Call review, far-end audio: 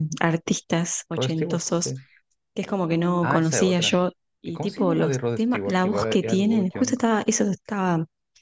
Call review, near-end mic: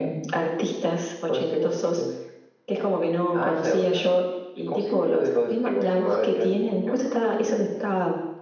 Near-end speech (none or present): none